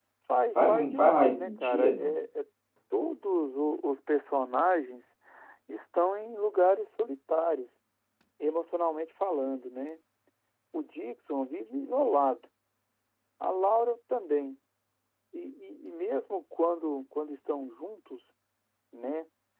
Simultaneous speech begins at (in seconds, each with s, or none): 0.6 s